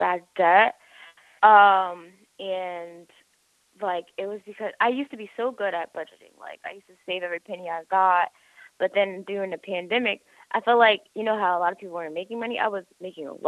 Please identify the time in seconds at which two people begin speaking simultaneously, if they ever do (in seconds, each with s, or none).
none